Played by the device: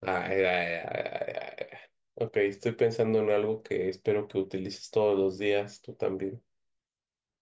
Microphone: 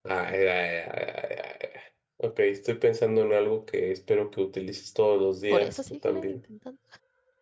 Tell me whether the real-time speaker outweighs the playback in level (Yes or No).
No